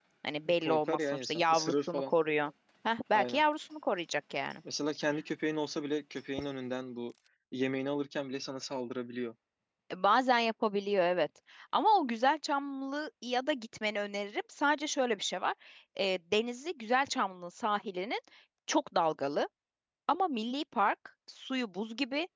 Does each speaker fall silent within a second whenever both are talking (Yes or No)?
No